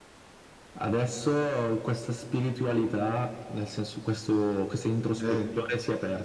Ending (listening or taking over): listening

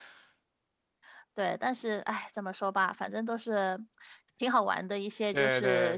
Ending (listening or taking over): taking over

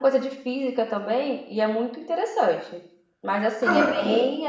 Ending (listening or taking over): listening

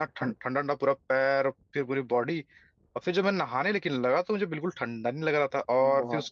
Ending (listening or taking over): listening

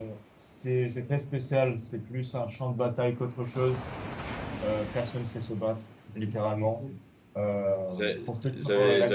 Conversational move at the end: taking over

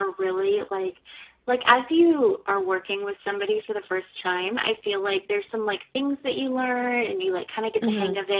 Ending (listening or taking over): listening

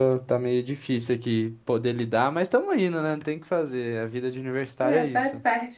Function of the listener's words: taking over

